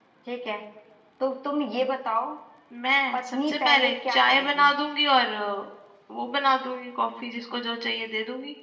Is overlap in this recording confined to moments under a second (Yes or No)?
No